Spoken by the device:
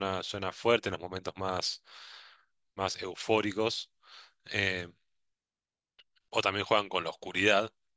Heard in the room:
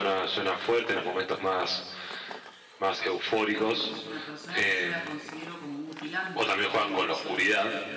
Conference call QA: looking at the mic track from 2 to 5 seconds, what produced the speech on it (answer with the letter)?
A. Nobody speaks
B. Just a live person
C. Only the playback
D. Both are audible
D